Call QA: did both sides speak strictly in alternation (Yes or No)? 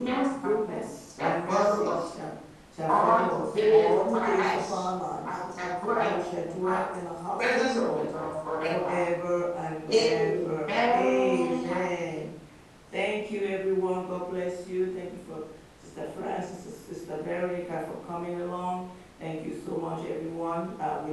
No